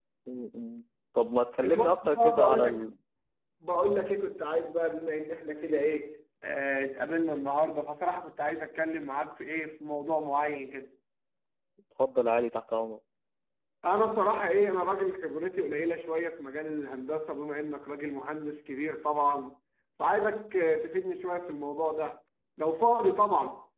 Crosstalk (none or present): present